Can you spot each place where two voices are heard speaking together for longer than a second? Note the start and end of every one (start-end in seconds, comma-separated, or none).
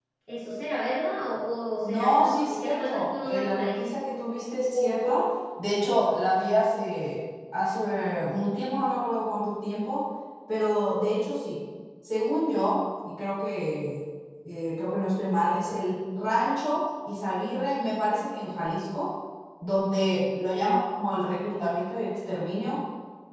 1.8-3.8